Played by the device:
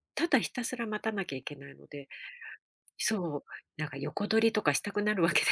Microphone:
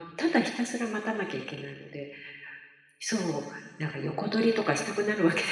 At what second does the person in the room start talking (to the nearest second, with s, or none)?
none